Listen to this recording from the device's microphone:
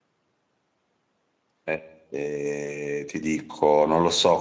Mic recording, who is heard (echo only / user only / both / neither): user only